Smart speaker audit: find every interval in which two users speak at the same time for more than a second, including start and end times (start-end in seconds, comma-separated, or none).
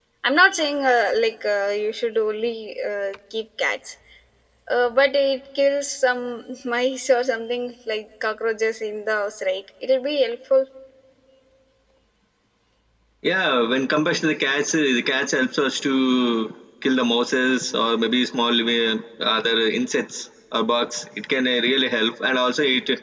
none